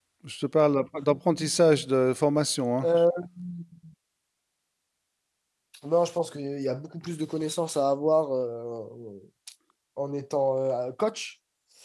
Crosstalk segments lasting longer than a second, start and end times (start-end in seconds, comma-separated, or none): none